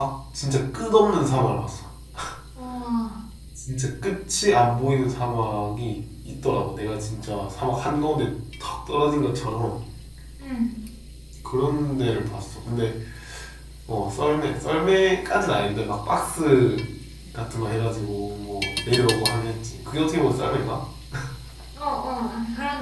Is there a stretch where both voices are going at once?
No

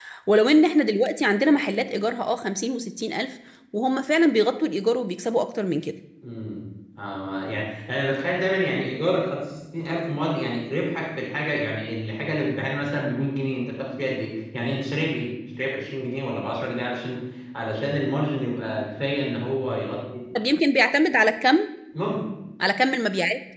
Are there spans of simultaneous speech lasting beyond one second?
No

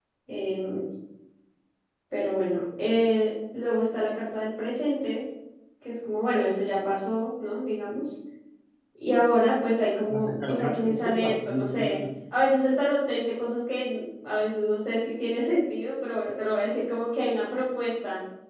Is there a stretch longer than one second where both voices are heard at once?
Yes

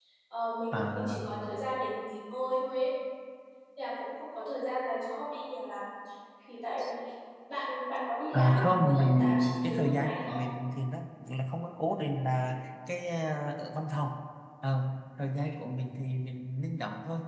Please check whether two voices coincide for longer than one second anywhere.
Yes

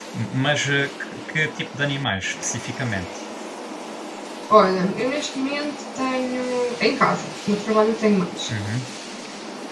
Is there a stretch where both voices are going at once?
No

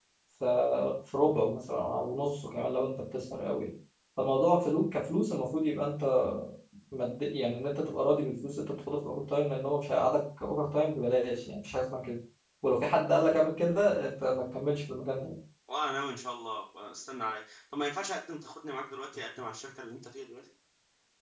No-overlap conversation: Yes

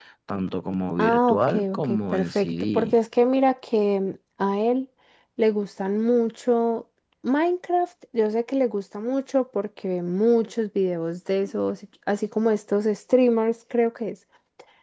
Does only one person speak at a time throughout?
No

